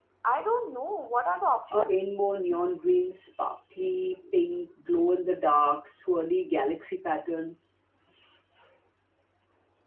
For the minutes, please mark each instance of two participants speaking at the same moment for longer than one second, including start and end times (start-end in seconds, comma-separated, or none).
none